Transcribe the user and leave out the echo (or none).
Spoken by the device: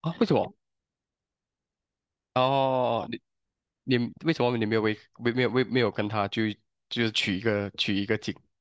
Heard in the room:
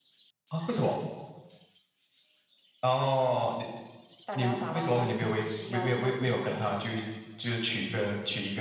大家要达到大家需要的共同目标就好。